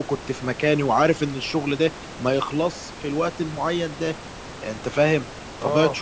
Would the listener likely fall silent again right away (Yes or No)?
Yes